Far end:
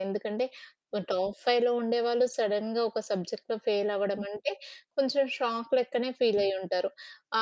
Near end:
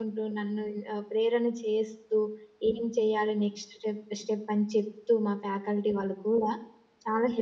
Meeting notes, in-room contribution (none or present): present